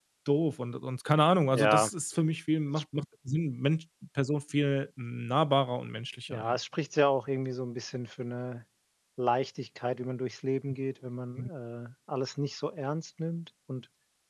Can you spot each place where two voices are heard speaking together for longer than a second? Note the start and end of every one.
none

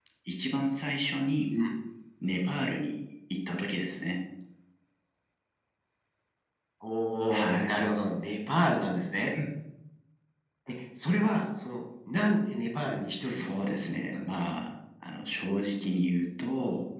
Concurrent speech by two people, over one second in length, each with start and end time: 13.2-14.5

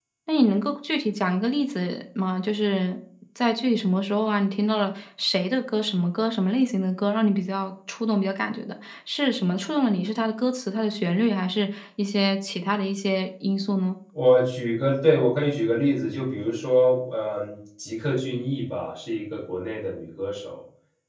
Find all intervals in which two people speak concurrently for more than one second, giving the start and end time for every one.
none

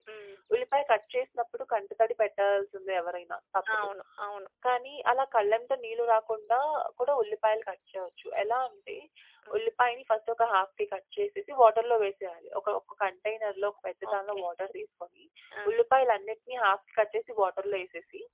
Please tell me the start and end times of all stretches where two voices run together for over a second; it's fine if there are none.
none

